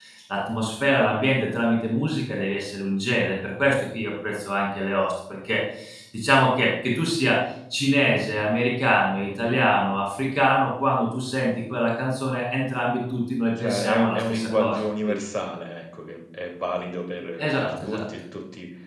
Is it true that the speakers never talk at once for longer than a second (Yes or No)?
No